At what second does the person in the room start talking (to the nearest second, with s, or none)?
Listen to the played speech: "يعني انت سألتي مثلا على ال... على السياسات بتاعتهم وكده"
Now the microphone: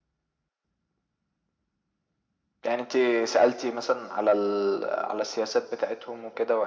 none